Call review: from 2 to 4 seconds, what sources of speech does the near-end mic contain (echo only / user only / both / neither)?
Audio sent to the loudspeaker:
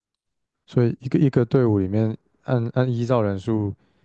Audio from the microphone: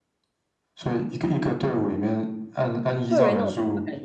both